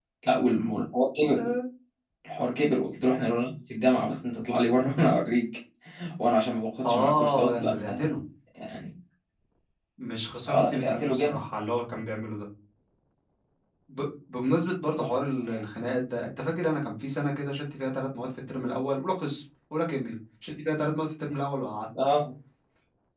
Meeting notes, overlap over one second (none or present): present